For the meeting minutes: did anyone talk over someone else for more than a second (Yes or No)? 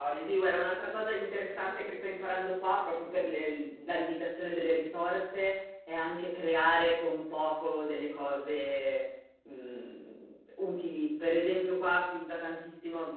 Yes